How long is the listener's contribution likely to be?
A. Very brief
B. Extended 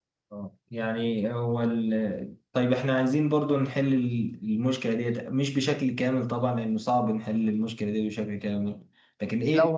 A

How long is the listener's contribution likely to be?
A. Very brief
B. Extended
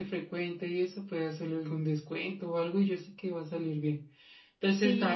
A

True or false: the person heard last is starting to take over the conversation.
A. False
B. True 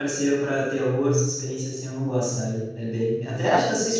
A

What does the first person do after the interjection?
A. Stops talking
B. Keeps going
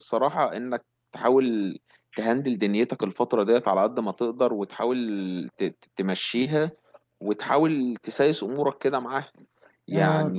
A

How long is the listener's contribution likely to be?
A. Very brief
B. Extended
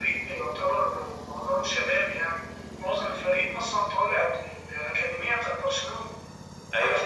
B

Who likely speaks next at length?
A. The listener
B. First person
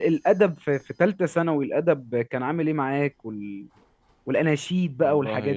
A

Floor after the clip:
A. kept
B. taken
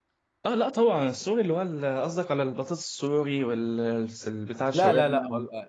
B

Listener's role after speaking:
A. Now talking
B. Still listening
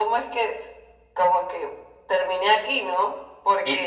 A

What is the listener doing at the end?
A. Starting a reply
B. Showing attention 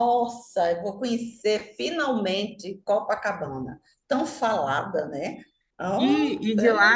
A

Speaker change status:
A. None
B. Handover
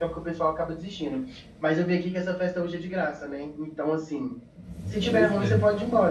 A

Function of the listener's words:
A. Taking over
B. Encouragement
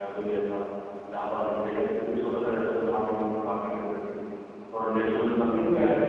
A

